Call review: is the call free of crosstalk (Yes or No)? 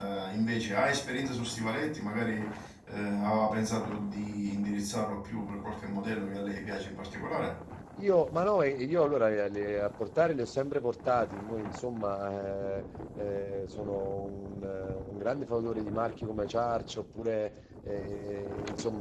Yes